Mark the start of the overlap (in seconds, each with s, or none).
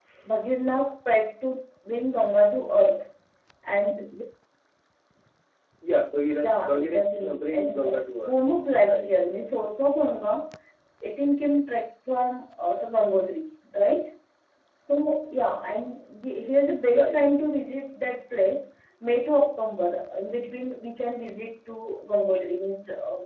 6.4 s